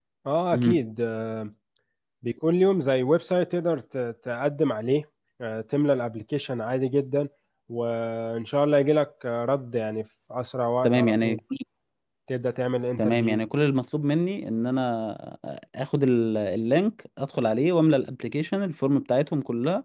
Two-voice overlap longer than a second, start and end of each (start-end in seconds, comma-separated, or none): none